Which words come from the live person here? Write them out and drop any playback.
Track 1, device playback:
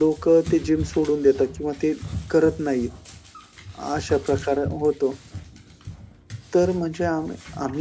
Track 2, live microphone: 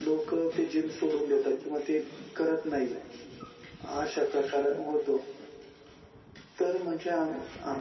none

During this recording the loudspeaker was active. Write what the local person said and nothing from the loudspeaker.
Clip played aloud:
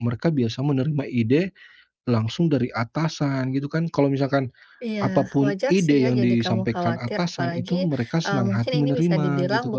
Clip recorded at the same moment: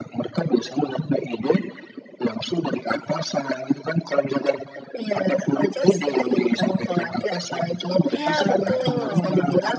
Iya, betul.

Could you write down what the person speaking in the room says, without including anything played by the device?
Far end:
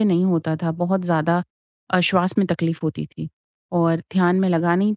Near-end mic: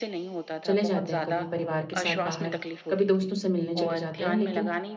चले जाते हैं कभी परिवार के साथ बाहर, कभी दोस्तों से मिलने चले जाते हैं, लेकिन

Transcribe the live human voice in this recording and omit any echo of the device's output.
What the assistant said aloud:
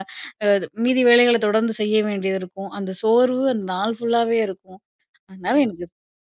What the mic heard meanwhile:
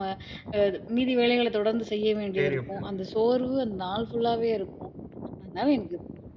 சரி அப்படின்னு.

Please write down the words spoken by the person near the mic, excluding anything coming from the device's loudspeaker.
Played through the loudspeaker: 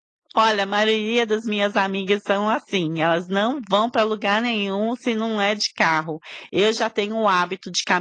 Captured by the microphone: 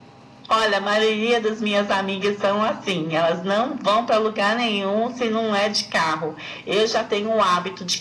none

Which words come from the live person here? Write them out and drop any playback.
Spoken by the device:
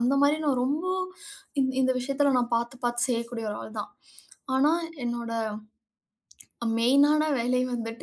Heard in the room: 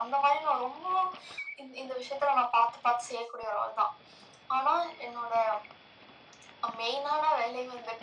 none

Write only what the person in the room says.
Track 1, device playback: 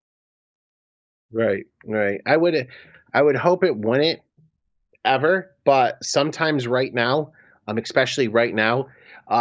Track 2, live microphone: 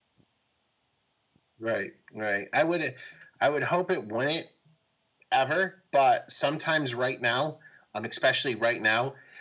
none

